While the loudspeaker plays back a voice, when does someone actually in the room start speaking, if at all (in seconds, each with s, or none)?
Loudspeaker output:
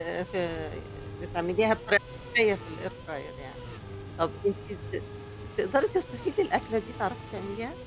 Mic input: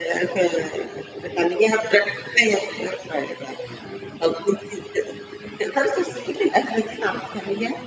none